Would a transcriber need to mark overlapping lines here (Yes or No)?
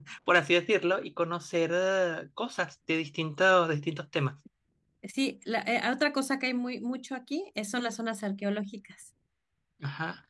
No